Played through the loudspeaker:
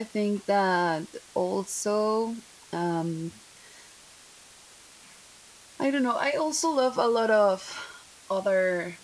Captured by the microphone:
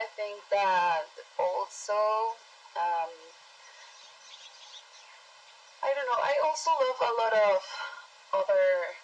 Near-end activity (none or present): none